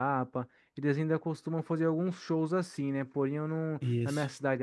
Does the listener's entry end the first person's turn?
No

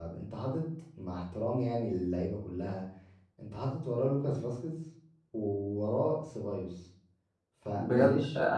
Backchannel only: No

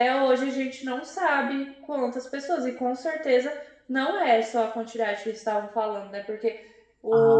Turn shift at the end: No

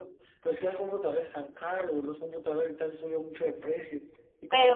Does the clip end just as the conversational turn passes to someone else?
No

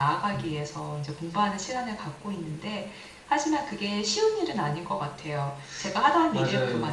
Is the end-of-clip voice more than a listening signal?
No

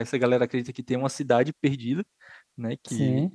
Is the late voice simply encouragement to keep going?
Yes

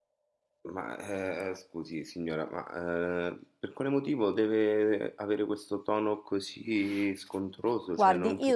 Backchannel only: No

